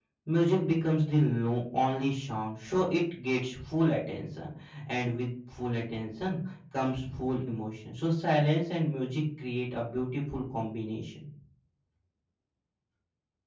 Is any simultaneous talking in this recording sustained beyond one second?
No

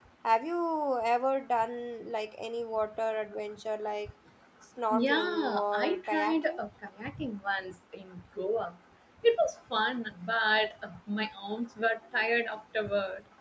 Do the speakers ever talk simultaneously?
Yes, from 4.9 s

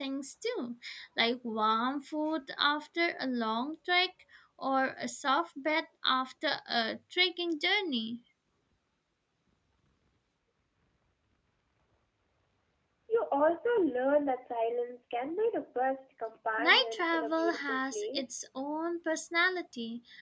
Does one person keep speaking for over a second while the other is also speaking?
Yes, from 16.6 s

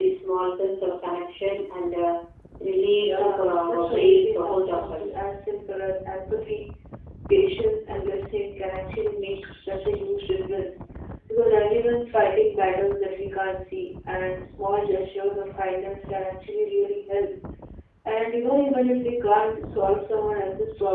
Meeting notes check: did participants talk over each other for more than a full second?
Yes, from 3.0 s

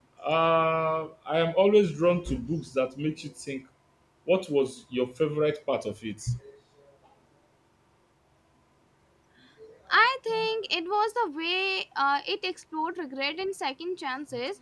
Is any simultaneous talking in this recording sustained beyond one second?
No

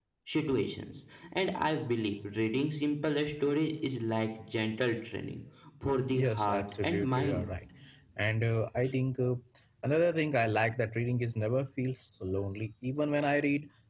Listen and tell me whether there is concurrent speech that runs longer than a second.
Yes, from 6.1 s

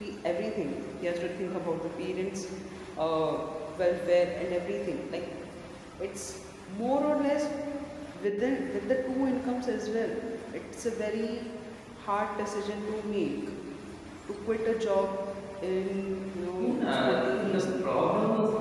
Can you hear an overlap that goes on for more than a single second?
Yes, from 16.6 s

